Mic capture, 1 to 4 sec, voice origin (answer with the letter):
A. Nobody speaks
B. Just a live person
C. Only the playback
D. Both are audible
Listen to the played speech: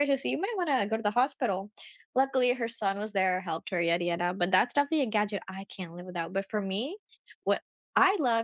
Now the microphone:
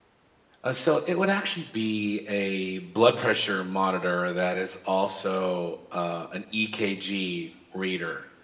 B